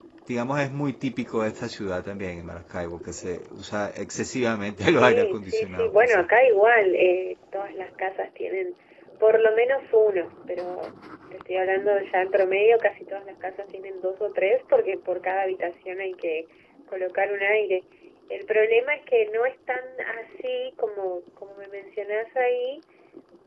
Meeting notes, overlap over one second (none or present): present